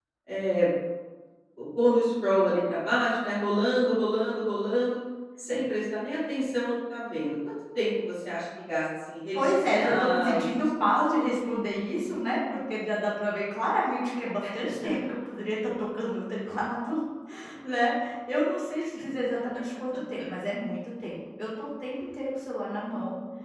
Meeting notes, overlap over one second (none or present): present